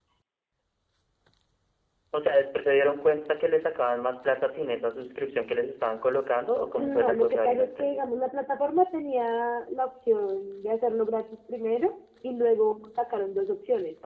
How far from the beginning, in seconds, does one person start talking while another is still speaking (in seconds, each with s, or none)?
6.8 s